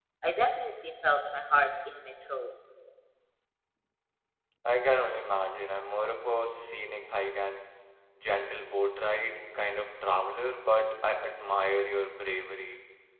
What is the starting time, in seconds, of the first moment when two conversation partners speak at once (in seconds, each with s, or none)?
none